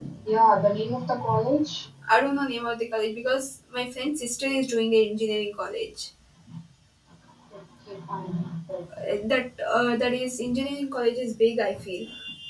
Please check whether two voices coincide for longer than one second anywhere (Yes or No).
No